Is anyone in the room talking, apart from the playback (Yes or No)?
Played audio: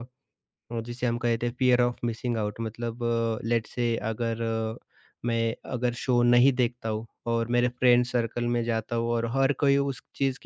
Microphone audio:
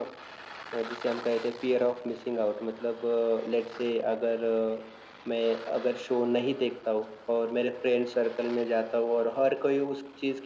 No